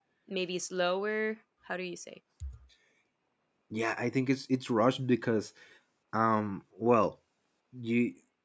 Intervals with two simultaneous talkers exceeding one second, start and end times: none

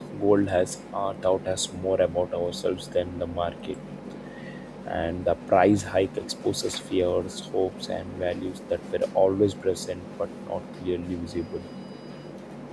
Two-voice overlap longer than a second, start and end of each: none

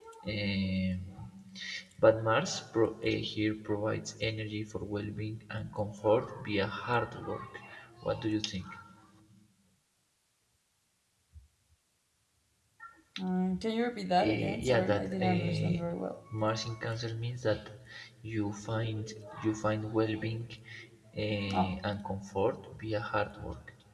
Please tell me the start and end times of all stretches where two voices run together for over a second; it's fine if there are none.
14.3-15.8

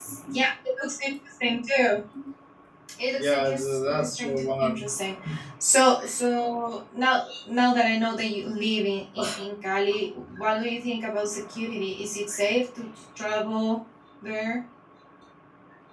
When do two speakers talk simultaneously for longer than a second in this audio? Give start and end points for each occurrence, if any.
3.2-4.8

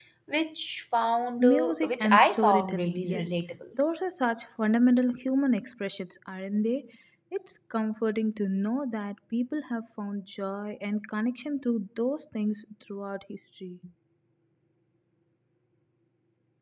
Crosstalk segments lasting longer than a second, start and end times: 1.4-3.3

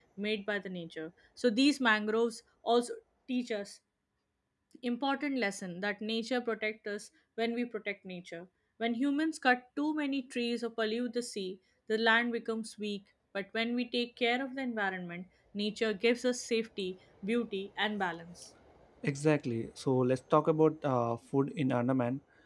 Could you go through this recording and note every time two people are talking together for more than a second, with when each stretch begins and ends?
none

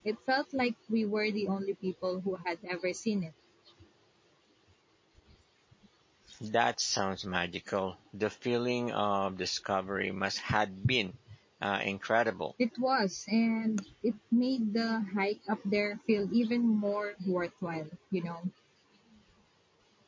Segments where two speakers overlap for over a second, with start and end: none

